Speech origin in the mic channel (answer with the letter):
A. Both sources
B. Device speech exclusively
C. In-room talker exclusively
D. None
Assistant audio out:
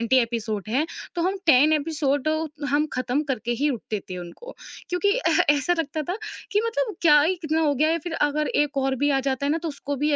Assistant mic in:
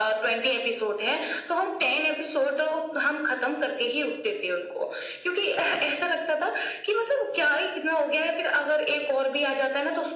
B